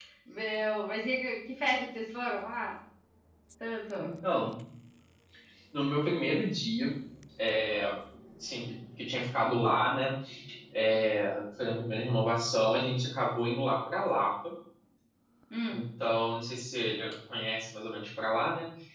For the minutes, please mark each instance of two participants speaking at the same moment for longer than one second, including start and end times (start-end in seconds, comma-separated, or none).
none